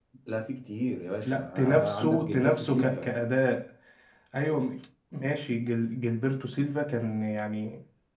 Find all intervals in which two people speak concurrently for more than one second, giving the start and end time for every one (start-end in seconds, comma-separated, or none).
1.2-3.1